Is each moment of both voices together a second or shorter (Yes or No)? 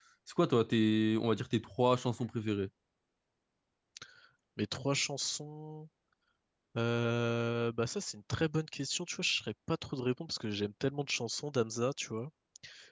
Yes